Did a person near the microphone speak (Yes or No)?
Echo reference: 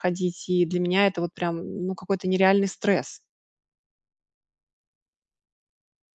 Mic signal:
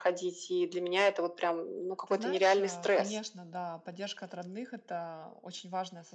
Yes